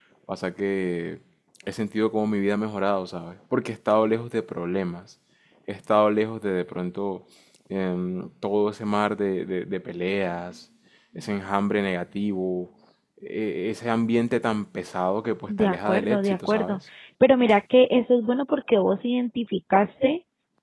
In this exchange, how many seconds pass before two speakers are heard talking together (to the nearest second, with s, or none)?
15 s